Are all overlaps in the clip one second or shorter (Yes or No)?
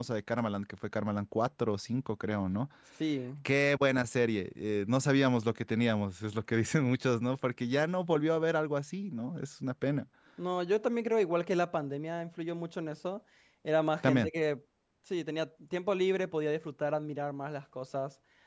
Yes